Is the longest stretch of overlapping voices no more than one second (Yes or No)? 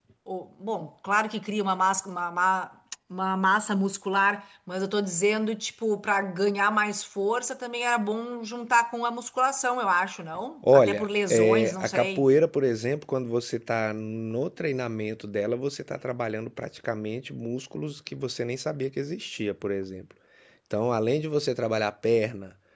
No